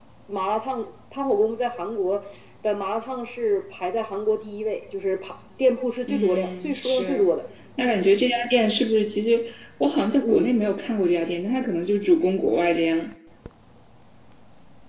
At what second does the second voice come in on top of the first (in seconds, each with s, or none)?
6.0 s